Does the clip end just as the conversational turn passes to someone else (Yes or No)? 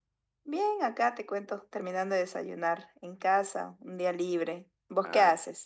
Yes